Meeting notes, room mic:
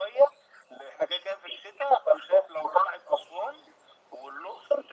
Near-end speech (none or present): none